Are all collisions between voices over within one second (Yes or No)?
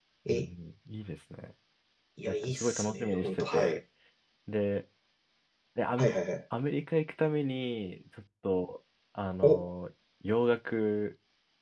No